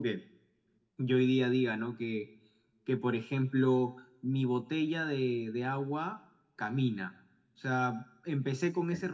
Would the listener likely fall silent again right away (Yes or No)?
Yes